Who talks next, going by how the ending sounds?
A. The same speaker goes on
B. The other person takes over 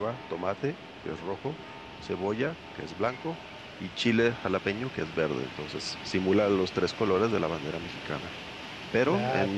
A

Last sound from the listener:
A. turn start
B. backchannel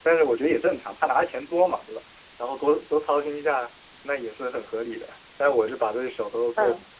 A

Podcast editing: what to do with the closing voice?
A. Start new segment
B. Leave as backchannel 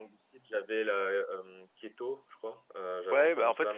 A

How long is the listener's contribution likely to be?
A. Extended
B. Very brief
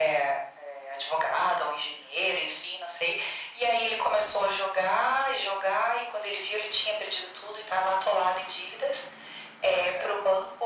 B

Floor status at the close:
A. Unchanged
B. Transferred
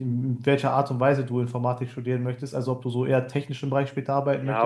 B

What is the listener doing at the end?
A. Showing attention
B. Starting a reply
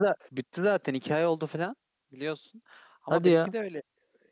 A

